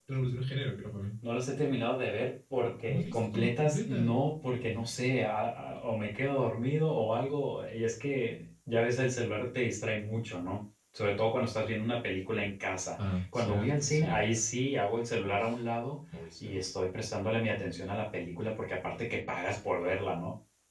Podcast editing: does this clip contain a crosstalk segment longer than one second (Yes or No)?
Yes